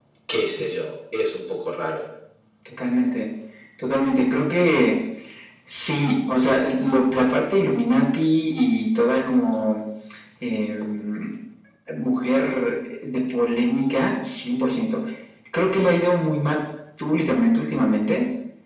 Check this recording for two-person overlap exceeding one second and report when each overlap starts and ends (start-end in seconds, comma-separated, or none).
none